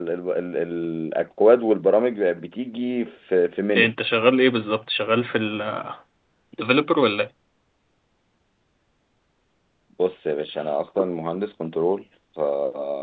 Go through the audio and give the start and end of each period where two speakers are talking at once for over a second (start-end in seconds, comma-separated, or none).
none